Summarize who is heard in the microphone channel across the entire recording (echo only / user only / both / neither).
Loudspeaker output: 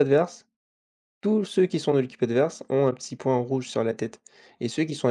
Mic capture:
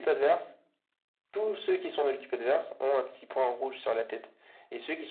echo only